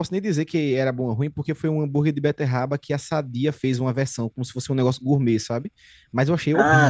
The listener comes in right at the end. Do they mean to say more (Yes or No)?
Yes